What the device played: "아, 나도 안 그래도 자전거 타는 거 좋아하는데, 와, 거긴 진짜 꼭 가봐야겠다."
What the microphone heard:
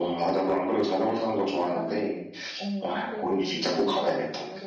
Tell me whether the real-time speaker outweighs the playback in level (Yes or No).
No